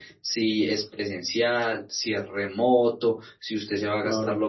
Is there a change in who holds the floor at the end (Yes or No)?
No